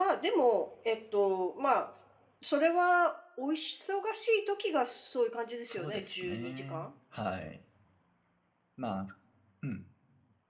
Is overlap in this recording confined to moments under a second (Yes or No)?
No